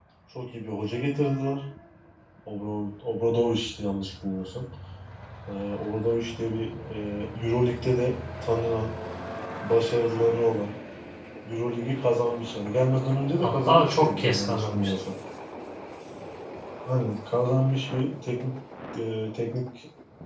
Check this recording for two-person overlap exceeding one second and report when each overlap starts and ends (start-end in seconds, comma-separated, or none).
13.4-14.9